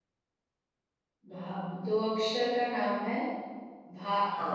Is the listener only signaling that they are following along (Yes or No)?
No